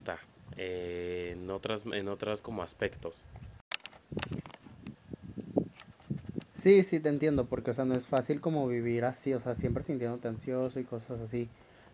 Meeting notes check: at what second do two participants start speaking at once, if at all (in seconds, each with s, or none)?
none